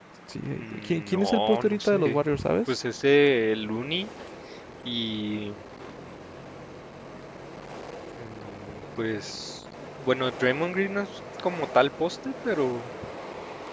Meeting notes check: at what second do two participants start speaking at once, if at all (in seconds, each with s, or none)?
0.5 s